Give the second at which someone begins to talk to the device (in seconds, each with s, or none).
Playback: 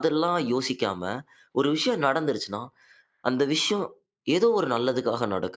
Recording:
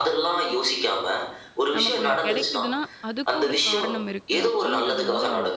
1.8 s